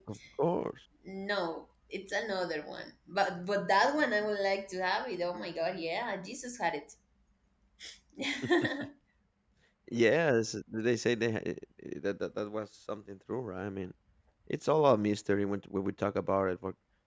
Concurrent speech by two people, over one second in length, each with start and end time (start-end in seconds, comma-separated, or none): none